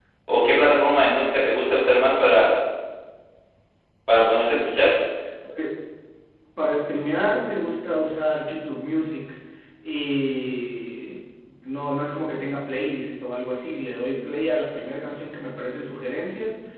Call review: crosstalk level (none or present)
none